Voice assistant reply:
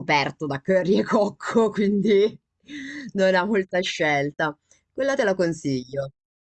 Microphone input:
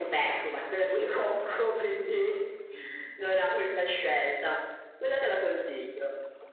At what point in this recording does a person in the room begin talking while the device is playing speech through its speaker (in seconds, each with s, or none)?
none